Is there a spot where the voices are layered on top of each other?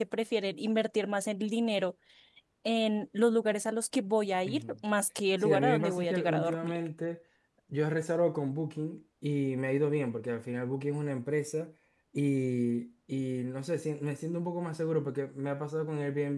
Yes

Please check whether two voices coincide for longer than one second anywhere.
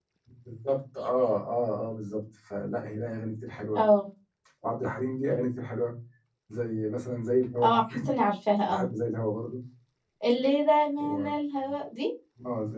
No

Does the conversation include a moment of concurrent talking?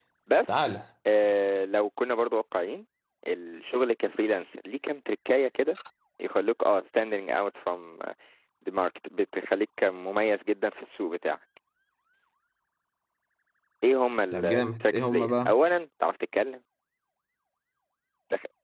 Yes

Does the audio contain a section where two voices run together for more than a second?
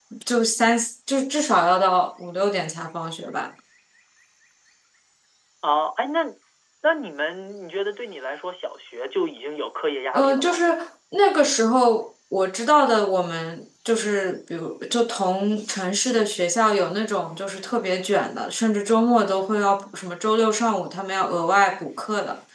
No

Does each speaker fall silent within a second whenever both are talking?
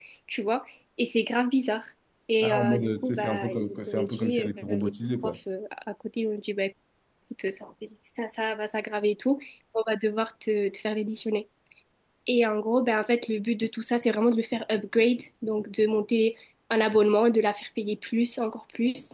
No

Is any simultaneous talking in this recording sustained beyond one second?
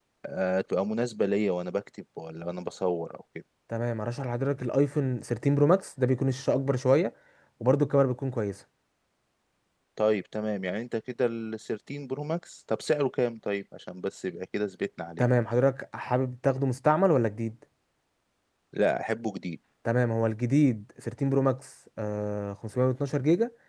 No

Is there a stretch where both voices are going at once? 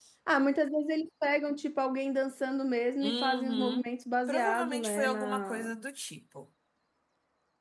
Yes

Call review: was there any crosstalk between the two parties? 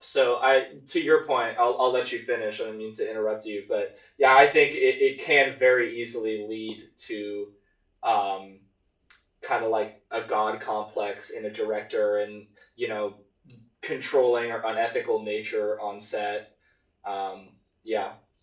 No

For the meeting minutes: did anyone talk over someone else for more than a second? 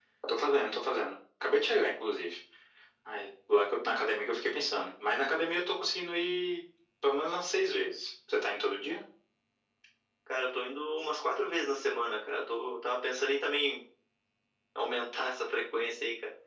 No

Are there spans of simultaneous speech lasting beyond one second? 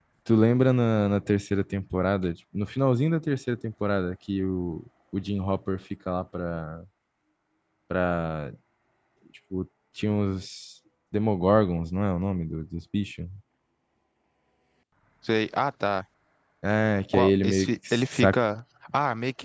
Yes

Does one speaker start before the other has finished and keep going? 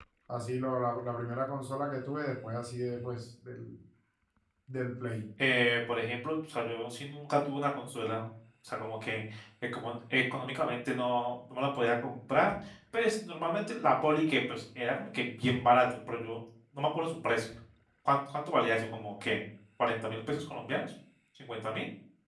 No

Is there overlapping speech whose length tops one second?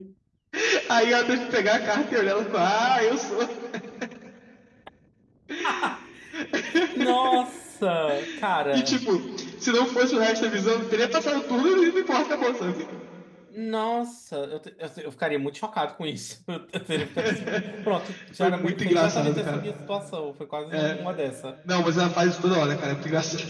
Yes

